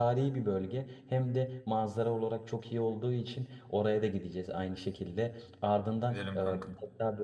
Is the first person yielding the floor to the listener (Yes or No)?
No